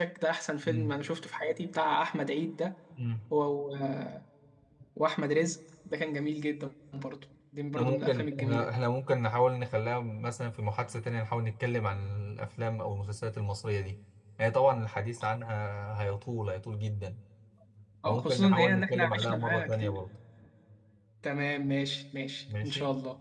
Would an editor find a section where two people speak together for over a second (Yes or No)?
Yes